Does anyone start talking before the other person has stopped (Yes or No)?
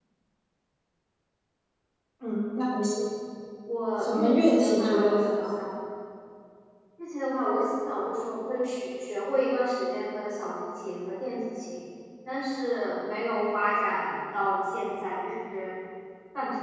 Yes